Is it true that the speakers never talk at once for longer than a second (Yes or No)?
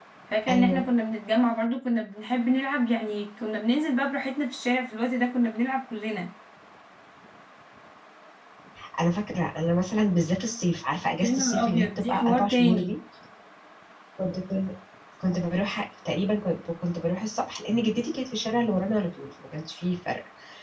No